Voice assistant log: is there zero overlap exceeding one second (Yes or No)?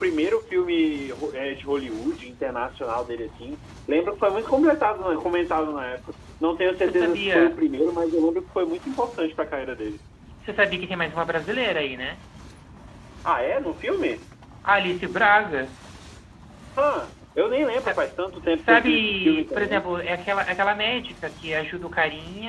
No